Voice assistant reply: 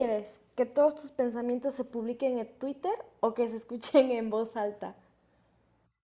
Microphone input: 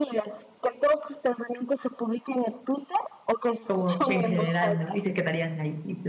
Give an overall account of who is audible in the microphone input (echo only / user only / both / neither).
both